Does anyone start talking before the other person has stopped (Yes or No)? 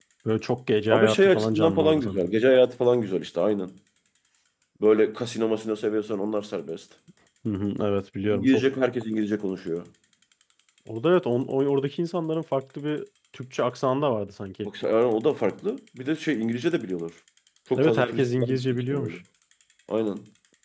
Yes